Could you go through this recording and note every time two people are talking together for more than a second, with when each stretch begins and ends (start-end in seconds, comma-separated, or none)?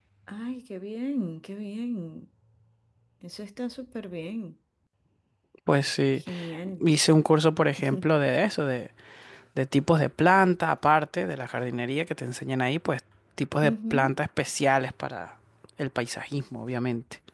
none